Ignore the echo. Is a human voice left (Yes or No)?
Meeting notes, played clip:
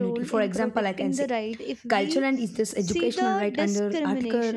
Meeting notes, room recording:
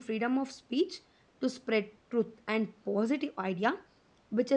Yes